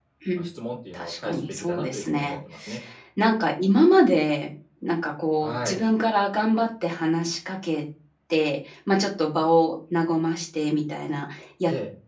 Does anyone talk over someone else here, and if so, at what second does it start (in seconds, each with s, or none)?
0.9 s